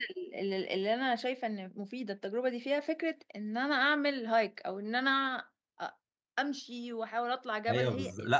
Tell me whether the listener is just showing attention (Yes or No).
No